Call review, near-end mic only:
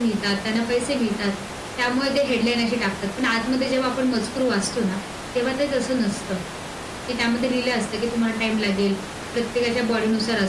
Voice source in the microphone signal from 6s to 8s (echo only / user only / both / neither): echo only